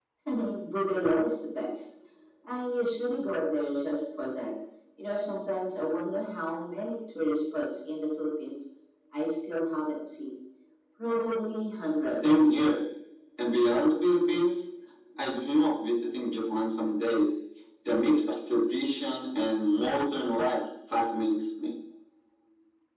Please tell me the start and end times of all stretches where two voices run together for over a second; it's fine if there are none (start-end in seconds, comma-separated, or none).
none